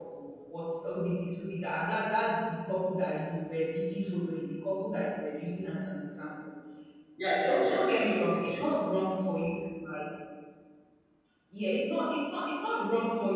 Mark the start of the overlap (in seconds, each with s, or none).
7.4 s